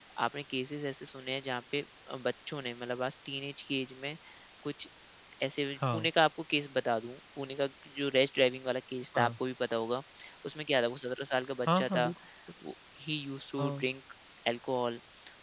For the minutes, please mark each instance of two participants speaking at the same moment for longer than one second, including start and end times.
none

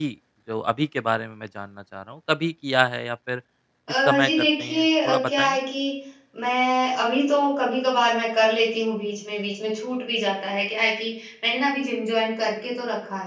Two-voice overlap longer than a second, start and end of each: 4.0-5.6

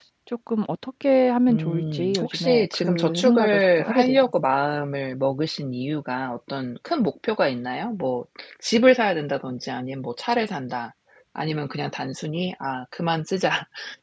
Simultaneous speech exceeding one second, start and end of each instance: 1.5-4.2

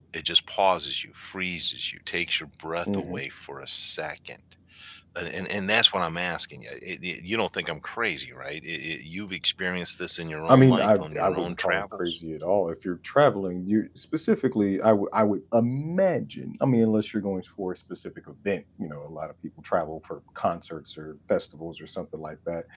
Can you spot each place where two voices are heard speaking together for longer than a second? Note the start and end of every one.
10.5-12.2

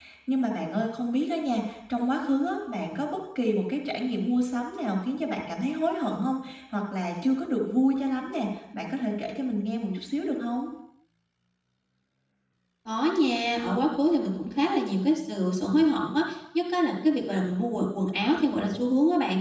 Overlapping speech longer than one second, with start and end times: none

